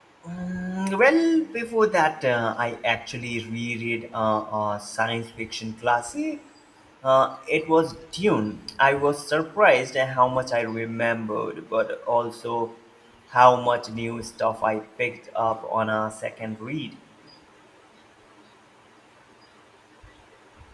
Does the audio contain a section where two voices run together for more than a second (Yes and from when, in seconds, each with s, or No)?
No